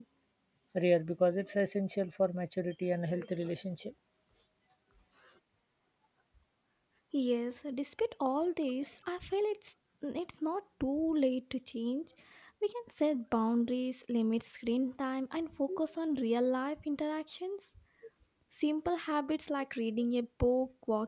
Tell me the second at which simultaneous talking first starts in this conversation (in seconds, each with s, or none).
none